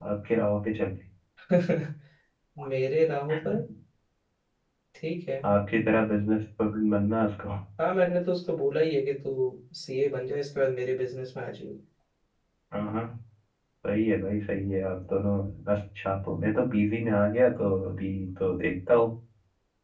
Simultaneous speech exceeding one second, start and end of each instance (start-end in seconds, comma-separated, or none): none